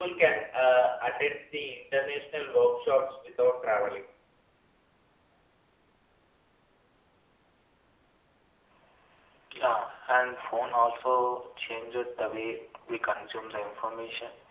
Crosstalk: none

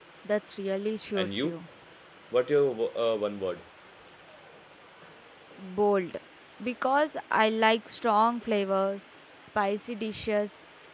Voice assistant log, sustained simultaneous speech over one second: none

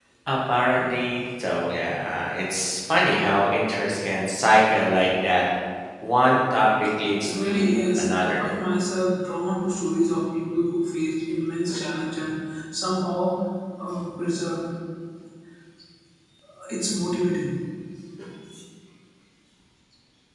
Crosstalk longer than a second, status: present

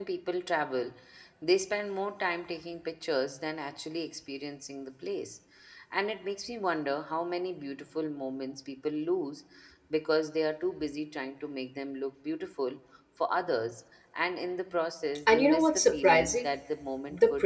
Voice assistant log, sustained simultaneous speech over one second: present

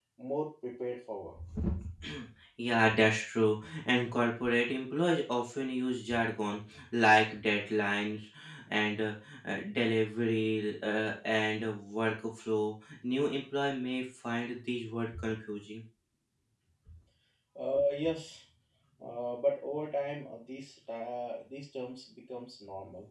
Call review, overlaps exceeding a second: none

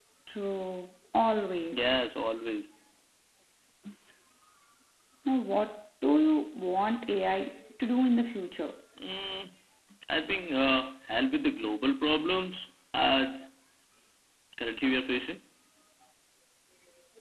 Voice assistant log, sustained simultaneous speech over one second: none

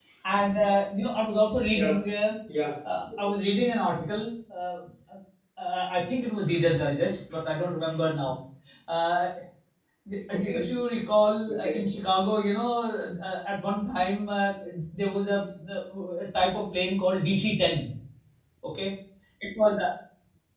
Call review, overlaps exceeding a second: none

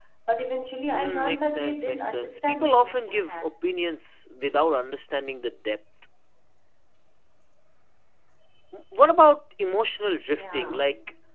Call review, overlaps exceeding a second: present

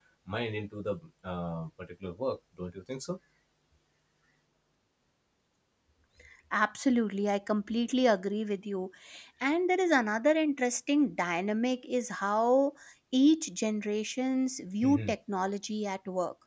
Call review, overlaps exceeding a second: none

